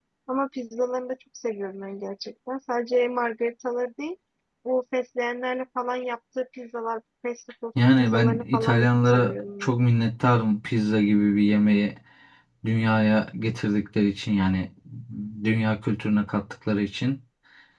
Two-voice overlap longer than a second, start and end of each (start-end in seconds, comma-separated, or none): 8.0-9.7